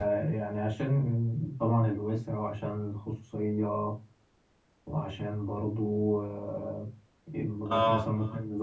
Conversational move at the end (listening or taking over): listening